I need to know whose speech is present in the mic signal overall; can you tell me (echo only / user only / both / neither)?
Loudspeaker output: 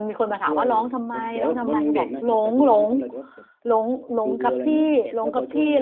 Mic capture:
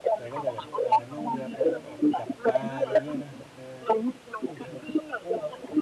both